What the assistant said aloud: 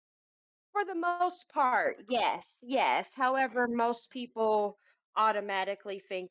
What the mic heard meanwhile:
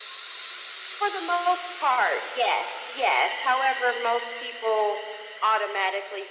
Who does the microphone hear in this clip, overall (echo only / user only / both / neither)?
echo only